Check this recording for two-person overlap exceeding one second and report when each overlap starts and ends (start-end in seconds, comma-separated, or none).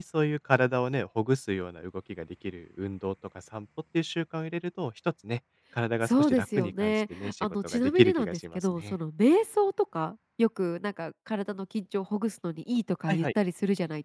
6.0-8.9